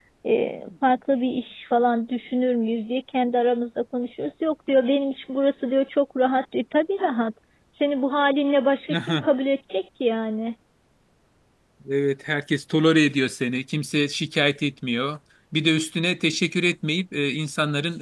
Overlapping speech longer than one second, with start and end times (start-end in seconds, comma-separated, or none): none